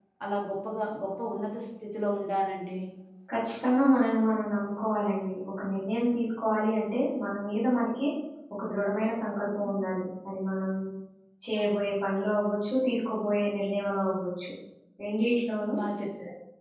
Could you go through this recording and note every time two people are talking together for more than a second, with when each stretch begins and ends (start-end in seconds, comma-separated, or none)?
none